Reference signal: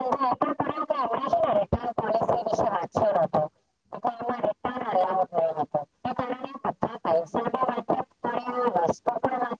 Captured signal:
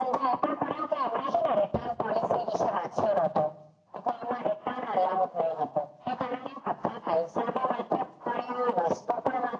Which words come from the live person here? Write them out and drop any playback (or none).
none